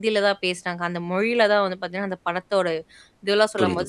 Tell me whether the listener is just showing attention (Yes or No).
Yes